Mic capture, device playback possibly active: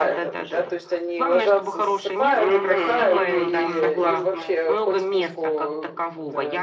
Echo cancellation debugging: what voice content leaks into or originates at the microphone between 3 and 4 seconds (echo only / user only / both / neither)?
both